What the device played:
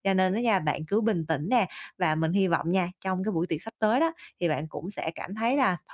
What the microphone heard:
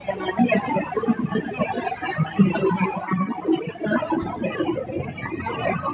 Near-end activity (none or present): none